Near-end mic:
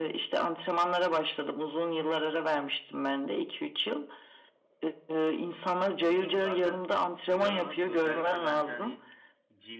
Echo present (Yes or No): Yes